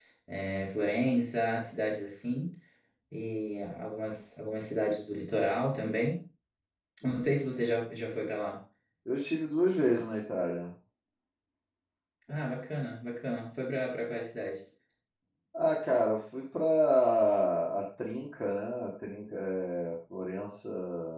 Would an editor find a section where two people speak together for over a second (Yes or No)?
No